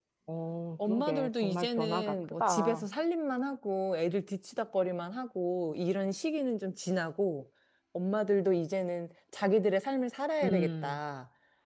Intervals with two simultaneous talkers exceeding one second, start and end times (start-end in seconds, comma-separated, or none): 0.9-2.8